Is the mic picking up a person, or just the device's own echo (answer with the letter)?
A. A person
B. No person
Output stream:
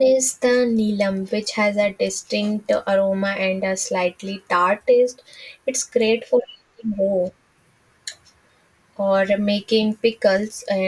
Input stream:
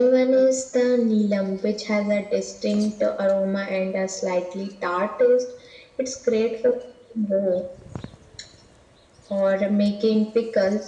B